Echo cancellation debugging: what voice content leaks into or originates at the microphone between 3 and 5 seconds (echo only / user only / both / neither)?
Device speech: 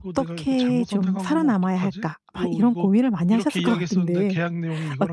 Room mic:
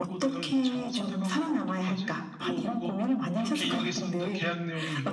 echo only